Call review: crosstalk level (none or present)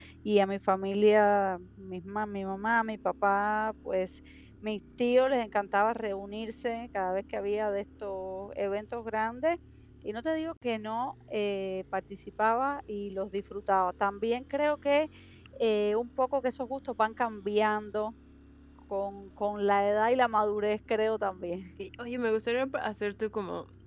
none